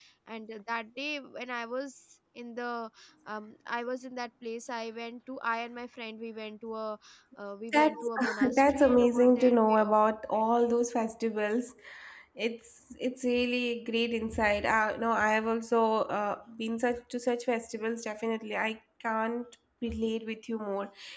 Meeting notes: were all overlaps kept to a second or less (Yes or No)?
No